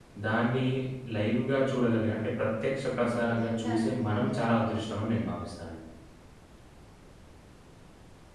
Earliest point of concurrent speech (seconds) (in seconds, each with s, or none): 2.9 s